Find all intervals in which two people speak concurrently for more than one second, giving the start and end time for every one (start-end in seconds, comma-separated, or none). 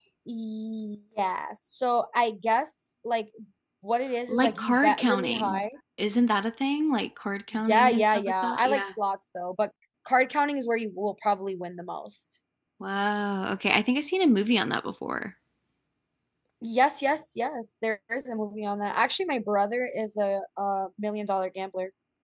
4.3-5.6, 7.7-8.9